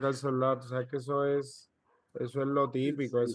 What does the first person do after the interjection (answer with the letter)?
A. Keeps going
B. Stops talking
B